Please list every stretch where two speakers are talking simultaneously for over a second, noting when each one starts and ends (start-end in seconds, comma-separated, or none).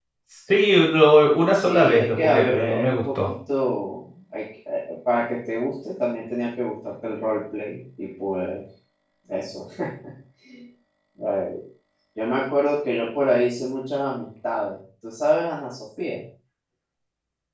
1.5-3.3